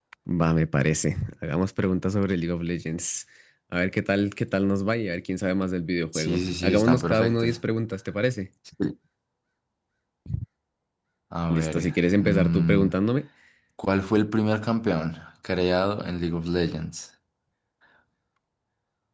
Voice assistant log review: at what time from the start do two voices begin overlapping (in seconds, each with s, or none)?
6.1 s